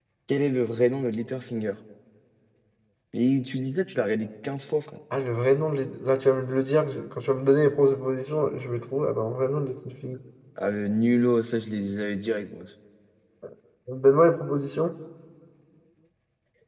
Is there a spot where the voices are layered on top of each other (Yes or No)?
No